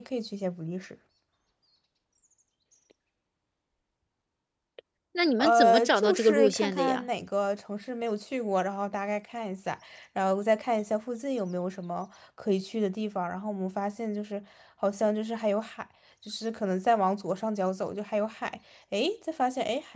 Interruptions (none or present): present